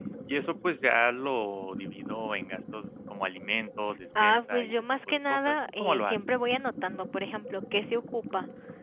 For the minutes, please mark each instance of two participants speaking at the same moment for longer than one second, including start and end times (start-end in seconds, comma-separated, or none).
4.2-6.2